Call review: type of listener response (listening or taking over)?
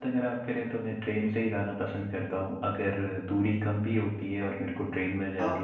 taking over